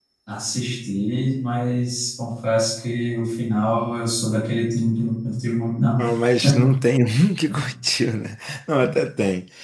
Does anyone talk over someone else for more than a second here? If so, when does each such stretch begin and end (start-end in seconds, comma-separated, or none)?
none